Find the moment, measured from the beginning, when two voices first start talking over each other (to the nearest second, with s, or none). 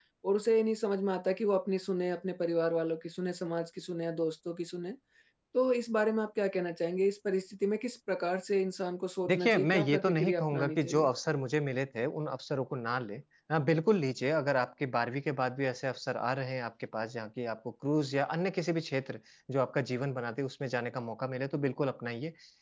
9 s